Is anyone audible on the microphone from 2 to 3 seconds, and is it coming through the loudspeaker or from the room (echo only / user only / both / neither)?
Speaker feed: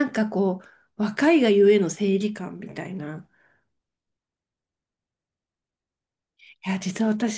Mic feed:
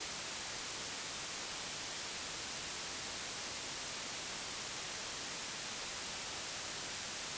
neither